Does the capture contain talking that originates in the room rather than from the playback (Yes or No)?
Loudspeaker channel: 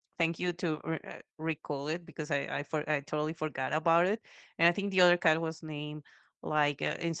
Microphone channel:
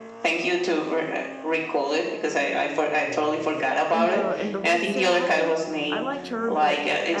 Yes